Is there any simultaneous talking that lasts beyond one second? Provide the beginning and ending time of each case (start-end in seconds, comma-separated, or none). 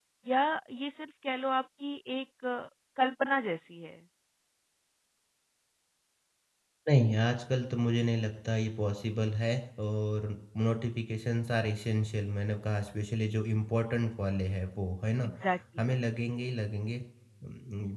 none